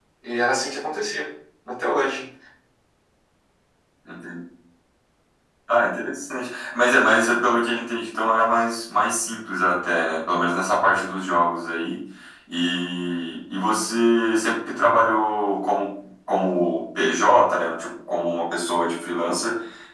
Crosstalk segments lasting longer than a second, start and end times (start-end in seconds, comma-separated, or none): none